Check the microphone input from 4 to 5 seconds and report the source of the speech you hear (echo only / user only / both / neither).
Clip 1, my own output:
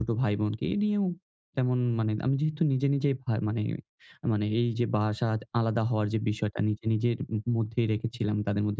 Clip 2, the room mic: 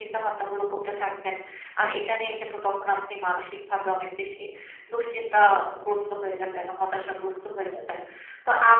user only